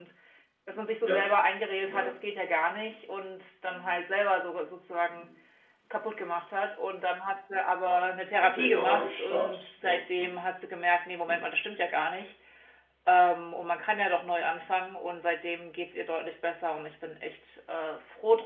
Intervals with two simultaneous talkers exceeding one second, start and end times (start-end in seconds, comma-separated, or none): 8.5-10.4